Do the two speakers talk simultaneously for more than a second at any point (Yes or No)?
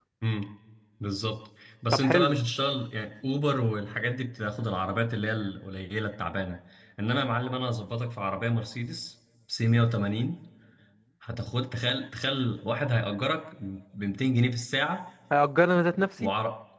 No